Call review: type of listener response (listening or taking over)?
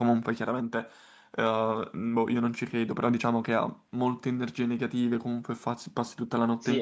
taking over